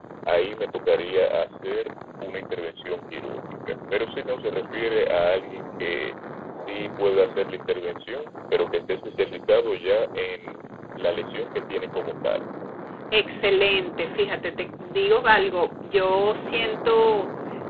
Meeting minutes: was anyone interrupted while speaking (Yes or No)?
No